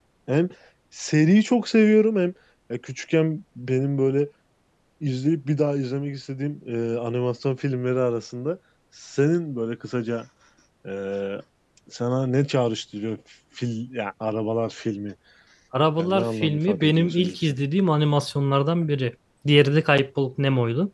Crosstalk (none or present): present